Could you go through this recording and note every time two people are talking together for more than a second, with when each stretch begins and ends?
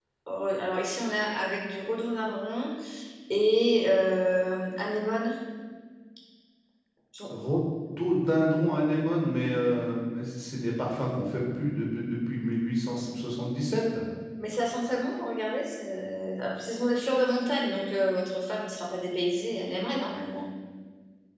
none

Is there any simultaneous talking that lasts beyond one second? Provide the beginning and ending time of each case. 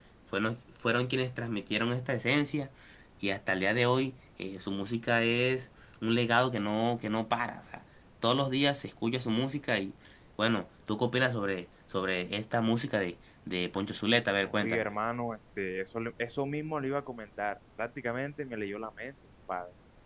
none

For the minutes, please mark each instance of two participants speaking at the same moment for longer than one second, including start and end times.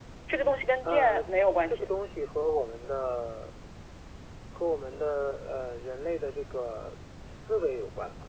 none

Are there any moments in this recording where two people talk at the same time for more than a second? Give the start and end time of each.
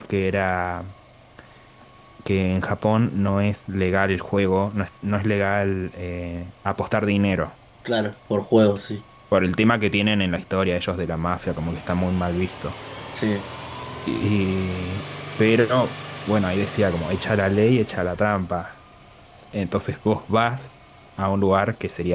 none

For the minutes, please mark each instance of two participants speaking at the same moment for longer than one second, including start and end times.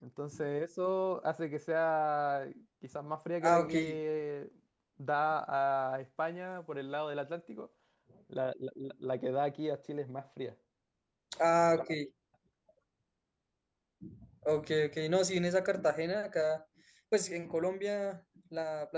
none

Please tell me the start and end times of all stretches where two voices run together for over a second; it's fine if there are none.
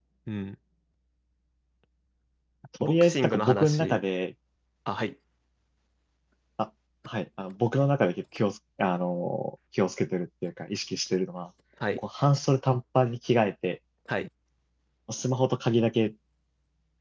2.8-4.0

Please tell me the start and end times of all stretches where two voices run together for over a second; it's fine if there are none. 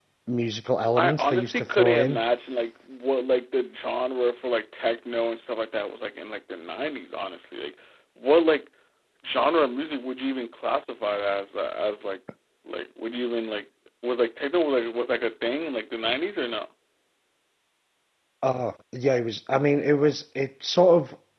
0.9-2.2

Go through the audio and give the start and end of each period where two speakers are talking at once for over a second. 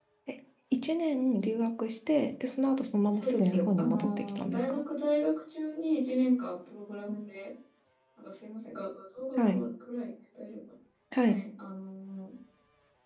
3.2-4.8

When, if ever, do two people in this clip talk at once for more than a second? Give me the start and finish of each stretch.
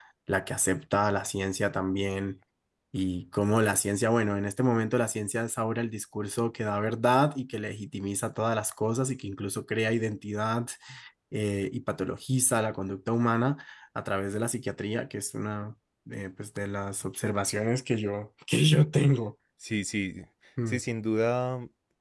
none

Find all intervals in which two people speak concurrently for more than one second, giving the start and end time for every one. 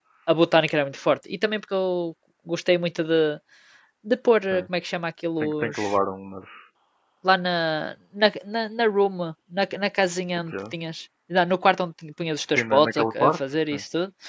12.5-13.8

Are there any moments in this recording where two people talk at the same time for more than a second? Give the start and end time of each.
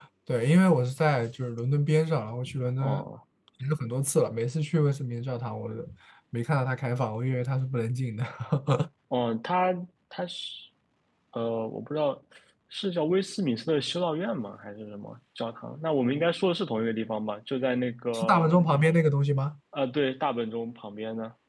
none

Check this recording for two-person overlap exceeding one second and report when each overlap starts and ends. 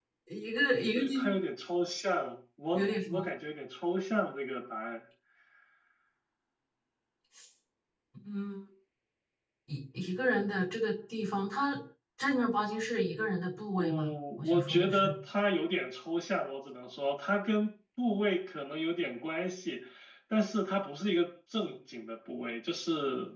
13.7-15.1

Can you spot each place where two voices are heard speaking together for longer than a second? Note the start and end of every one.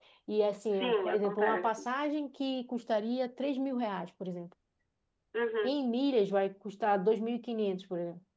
0.7-1.9

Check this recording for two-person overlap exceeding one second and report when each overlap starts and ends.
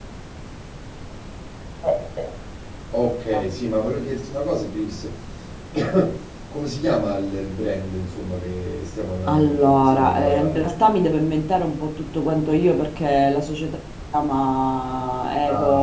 9.3-10.7

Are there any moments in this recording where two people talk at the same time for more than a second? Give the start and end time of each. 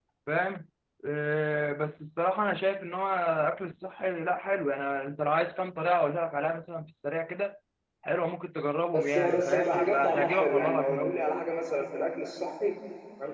8.9-11.2

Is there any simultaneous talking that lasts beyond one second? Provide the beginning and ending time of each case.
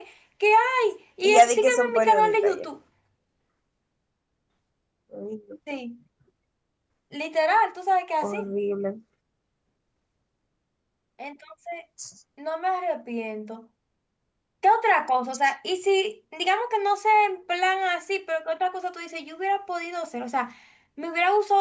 1.2-2.6

